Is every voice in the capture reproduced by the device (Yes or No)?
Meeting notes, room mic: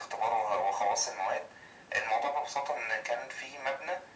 Yes